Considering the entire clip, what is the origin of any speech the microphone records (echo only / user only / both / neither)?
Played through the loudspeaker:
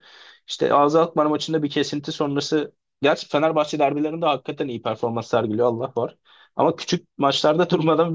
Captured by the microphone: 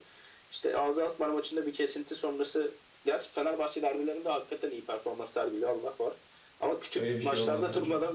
both